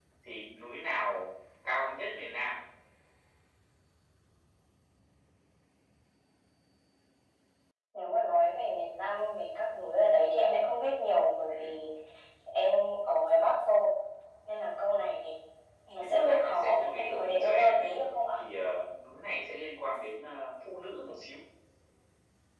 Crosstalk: present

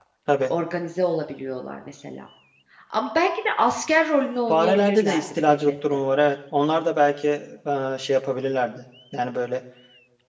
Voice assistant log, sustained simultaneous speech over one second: present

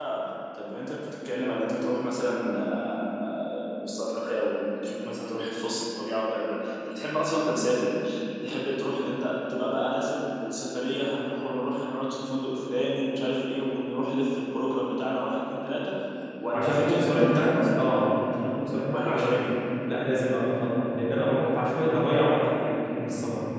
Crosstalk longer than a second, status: present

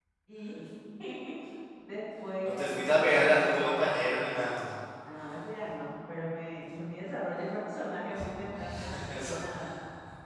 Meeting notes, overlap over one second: present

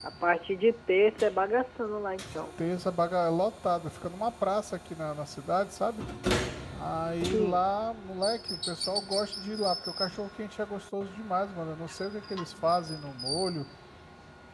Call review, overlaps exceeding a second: none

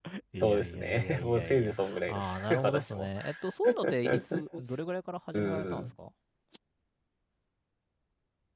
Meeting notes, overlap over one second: present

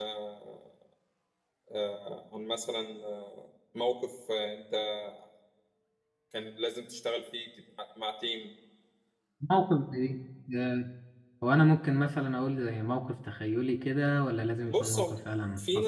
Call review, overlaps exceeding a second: none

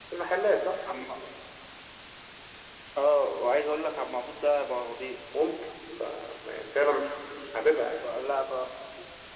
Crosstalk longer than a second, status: none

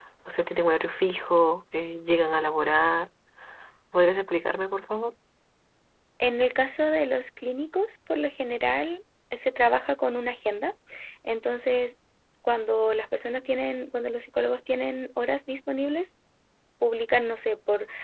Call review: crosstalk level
none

